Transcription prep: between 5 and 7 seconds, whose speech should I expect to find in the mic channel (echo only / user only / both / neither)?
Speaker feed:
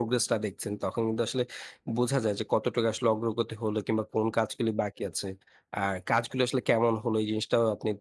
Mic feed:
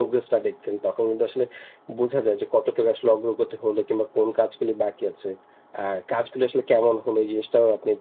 echo only